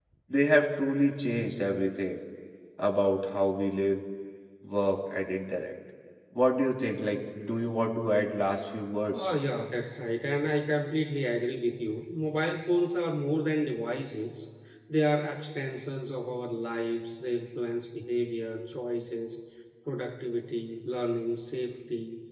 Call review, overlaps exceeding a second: none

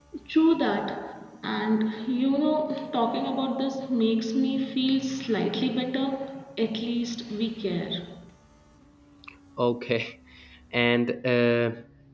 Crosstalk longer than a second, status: none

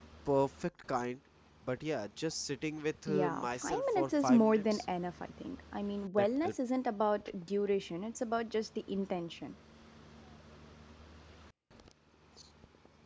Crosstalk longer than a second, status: present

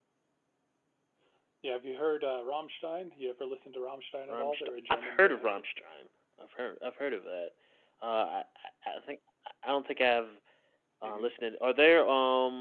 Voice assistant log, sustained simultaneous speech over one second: present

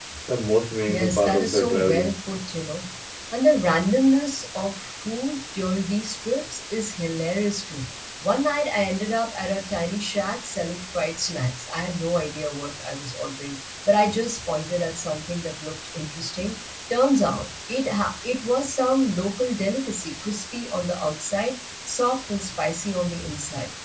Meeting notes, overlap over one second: present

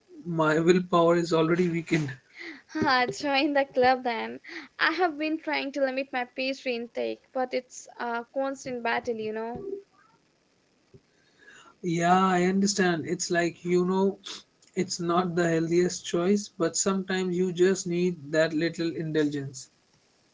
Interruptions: none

